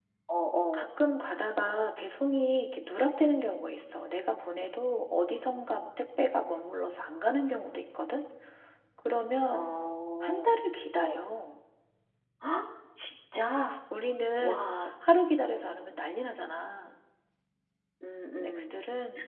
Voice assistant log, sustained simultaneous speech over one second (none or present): none